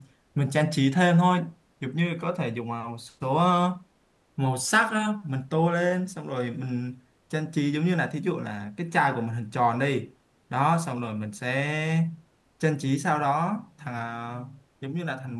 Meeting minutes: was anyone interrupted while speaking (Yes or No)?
No